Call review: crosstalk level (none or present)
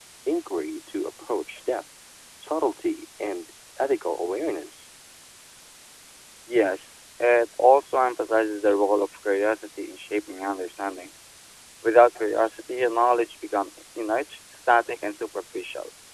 none